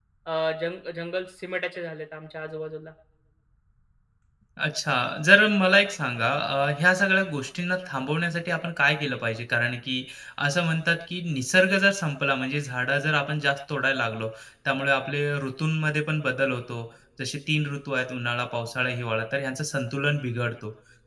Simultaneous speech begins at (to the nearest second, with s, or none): none